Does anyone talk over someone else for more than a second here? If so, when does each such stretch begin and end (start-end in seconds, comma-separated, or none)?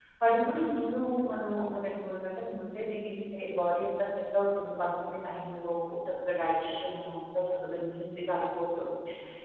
none